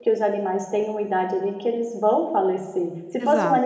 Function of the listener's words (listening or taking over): listening